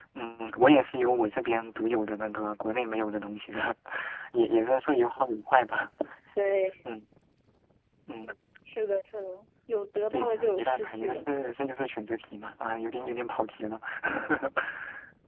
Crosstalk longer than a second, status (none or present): present